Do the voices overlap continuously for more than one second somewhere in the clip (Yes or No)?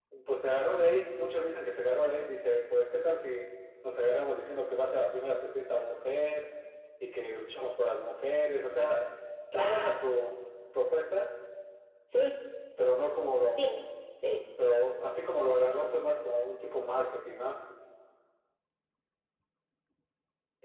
No